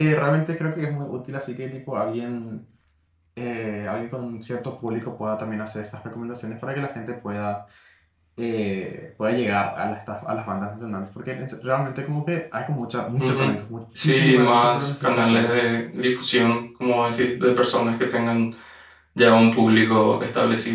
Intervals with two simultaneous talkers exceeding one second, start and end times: 14.0-15.7

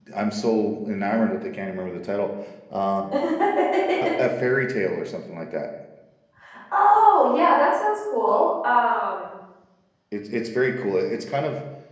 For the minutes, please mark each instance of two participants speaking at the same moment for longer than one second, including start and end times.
none

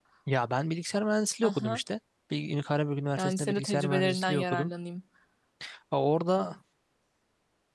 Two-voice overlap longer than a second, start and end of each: 3.2-4.7

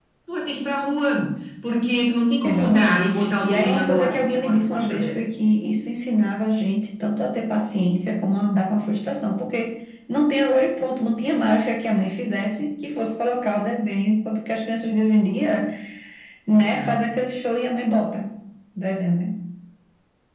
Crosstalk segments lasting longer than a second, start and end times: 2.4-5.2

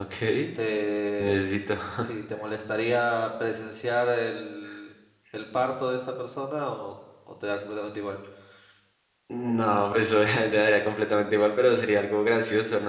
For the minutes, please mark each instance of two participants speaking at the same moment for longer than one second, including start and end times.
none

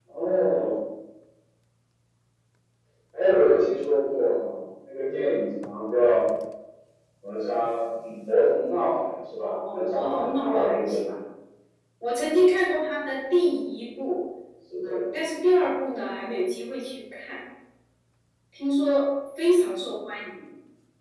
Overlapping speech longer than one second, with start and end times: 9.7-11.1

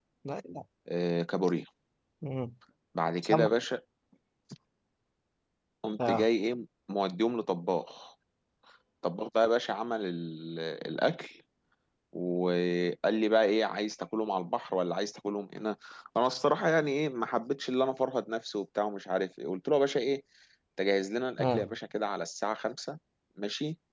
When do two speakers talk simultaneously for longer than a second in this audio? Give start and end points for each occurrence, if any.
none

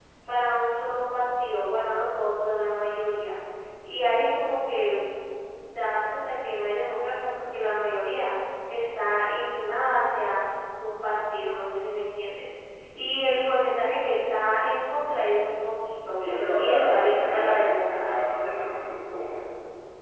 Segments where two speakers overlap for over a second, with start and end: 16.2-18.3

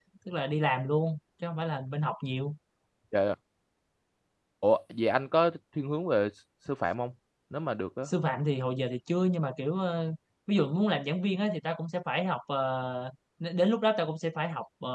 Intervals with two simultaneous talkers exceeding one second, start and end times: none

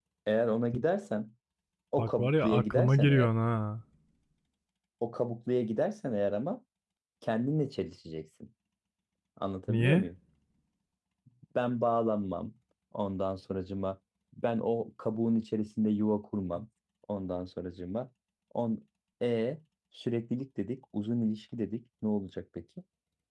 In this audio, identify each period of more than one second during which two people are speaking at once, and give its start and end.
2.0-3.3

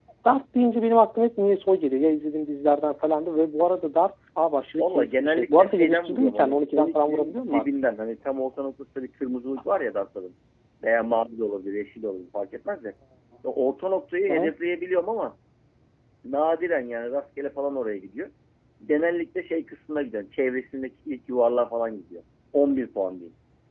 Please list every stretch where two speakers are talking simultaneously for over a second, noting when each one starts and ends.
4.8-7.7

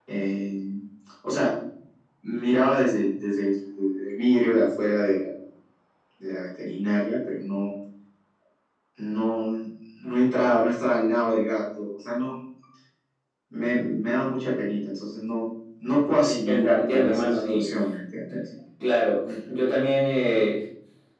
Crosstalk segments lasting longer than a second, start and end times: 16.2-17.7

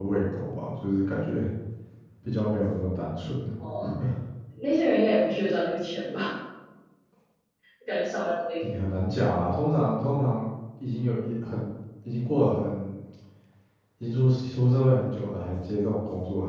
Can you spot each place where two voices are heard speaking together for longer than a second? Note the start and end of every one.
none

